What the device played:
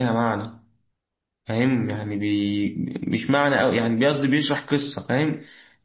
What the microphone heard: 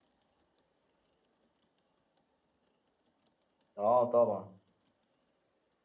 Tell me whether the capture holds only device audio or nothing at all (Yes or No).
No